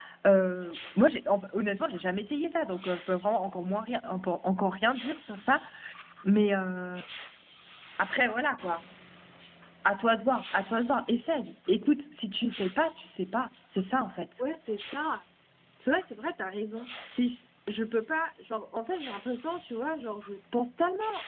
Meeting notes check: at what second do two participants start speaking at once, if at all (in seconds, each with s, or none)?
none